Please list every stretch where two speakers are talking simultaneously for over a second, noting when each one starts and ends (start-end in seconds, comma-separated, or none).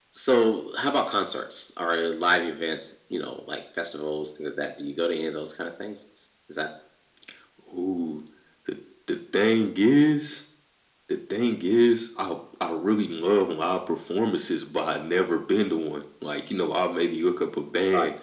none